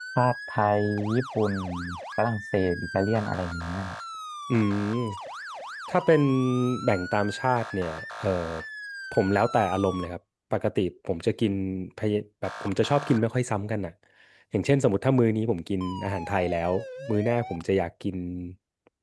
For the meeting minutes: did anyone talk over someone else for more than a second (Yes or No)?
No